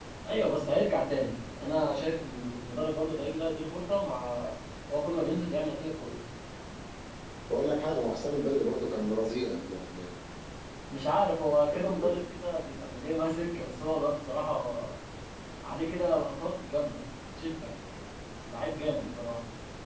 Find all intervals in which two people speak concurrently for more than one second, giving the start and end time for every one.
none

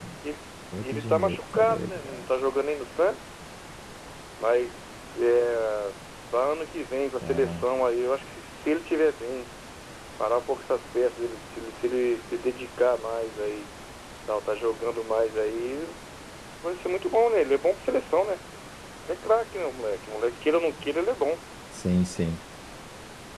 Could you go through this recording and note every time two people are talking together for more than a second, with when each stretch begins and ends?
0.8-2.2

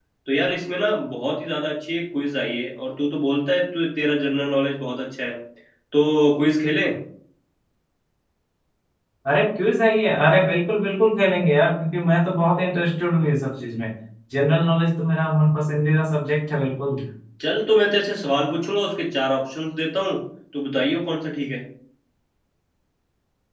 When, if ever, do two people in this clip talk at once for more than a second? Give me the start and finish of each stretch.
none

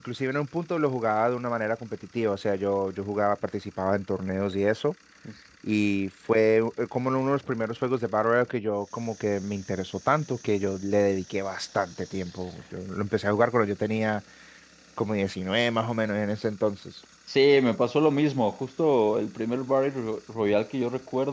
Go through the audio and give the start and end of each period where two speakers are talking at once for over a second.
none

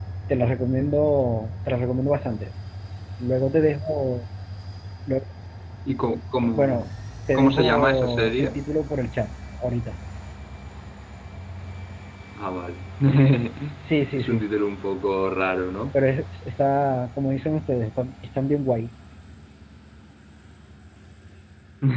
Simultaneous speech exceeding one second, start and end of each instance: 7.3-8.6

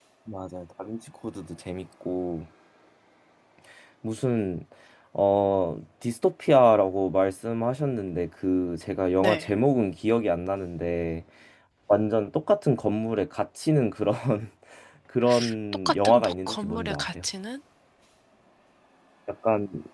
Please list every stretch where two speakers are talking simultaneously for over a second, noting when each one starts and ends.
15.9-17.1

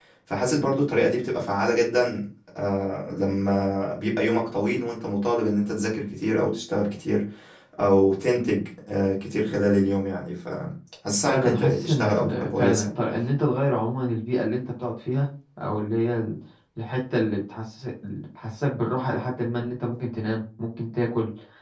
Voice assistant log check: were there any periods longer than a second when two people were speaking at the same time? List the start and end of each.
11.2-12.9

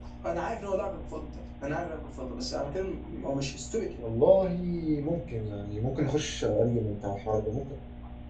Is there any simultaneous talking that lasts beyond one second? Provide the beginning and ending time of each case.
none

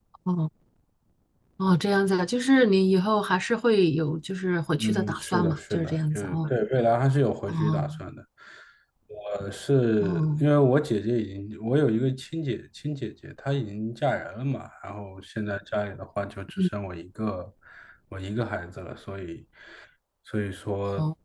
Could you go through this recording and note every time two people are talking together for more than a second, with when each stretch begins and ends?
4.8-6.5

